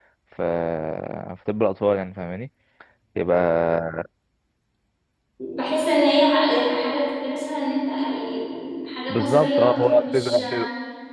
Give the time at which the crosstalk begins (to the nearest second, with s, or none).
9 s